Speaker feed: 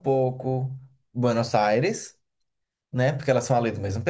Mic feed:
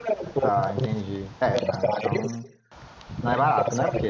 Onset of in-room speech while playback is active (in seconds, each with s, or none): 0.4 s